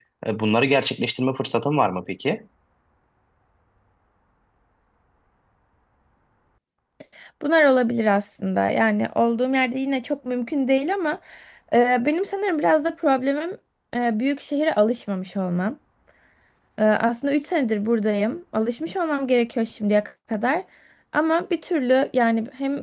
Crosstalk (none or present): none